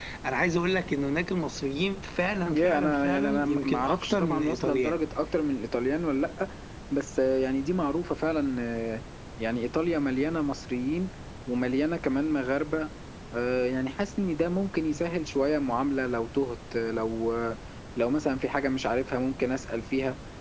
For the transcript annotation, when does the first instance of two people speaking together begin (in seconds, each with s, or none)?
2.5 s